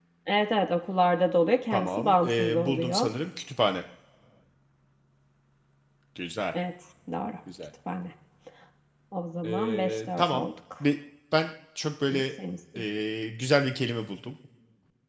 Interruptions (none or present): present